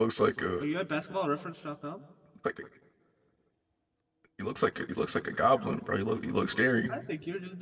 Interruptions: none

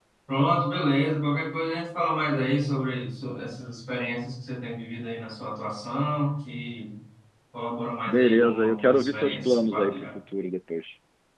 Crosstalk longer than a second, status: present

